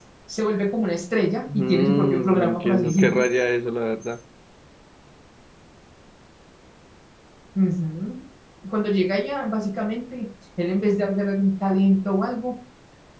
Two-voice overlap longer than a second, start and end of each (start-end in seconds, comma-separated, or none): 1.5-3.2